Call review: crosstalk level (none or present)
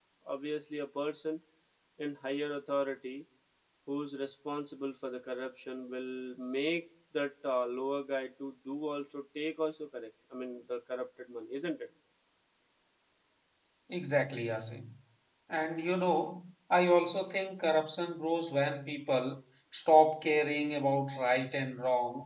none